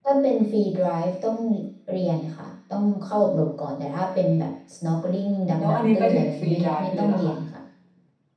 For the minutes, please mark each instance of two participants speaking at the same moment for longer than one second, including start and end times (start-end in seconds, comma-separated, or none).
5.6-7.3